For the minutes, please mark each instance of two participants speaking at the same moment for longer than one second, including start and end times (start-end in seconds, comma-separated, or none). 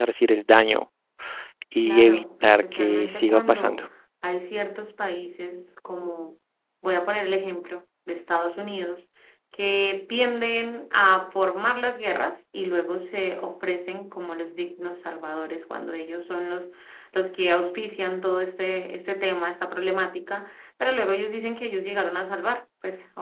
1.8-3.8